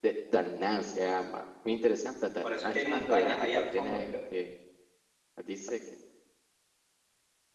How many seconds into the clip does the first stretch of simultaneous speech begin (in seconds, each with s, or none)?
2.4 s